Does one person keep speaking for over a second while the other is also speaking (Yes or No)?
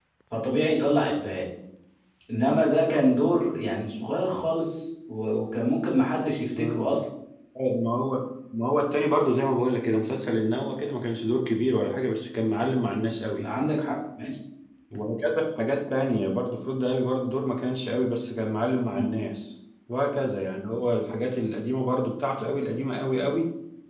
No